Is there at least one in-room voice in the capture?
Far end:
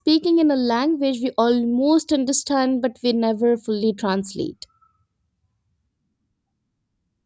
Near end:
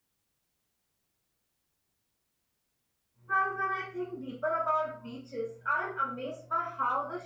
Yes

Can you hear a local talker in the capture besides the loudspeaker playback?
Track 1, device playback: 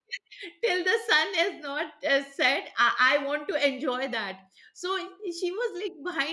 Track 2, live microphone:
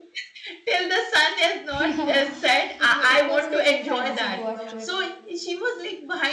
Yes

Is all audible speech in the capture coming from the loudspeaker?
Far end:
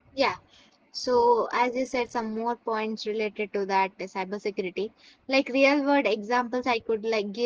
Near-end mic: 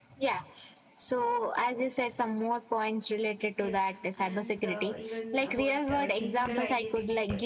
No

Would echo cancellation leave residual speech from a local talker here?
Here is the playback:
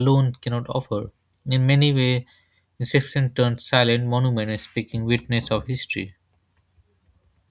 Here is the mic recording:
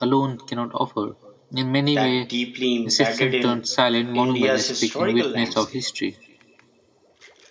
Yes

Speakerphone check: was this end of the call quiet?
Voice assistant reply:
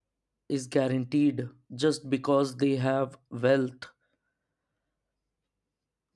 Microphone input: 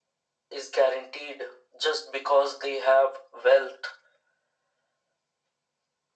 Yes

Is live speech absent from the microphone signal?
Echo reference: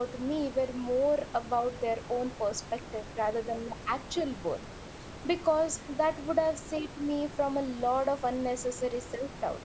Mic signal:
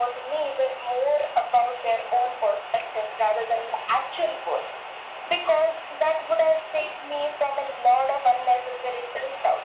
Yes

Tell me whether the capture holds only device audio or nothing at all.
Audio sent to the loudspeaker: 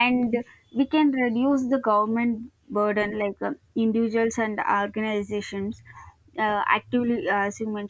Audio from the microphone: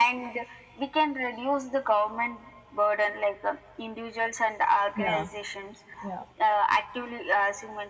No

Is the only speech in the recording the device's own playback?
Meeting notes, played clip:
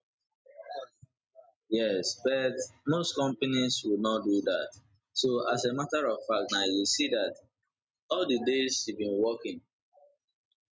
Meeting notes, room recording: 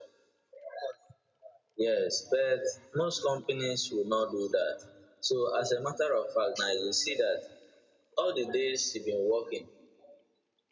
Yes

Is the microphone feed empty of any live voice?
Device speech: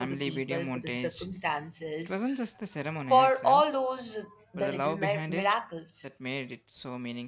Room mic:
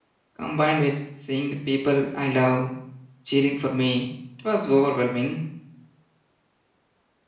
No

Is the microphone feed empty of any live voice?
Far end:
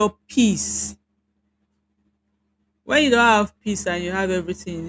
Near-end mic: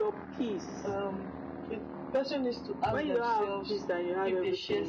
No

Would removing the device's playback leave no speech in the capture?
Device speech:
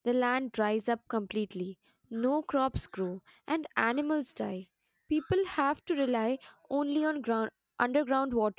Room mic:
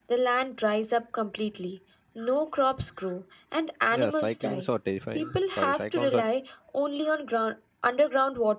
No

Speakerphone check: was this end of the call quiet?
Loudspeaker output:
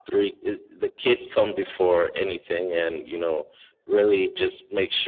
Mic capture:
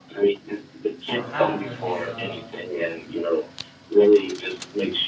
No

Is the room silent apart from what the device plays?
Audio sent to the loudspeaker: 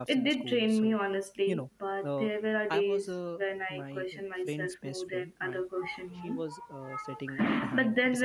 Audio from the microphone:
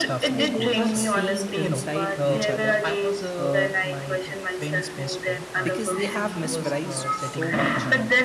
No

